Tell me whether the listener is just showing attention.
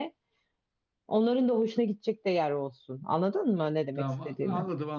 No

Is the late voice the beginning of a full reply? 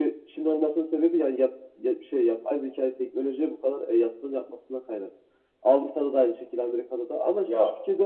No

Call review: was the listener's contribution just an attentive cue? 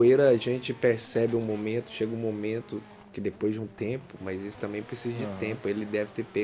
Yes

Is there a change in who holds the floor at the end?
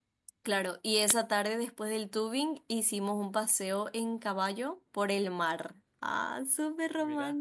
No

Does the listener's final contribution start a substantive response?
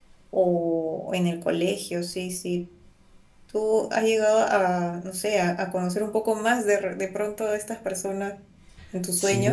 Yes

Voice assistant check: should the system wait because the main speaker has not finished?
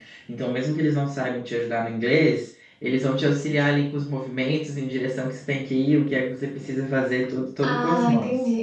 No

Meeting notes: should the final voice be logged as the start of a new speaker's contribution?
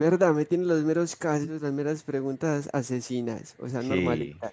Yes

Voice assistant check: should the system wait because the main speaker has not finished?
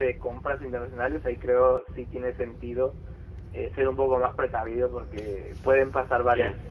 Yes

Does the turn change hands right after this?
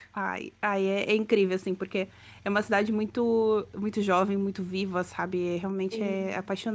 Yes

